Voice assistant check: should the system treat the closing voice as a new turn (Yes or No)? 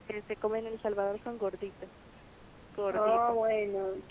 Yes